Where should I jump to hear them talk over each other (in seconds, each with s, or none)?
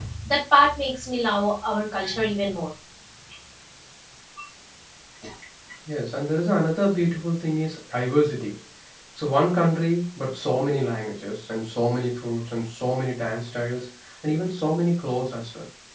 none